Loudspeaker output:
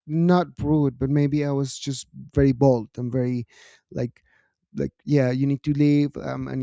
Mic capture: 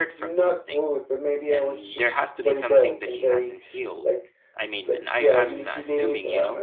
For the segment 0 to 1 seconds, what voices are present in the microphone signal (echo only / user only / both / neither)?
both